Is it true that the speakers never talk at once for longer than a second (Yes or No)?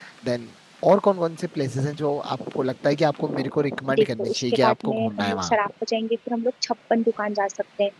No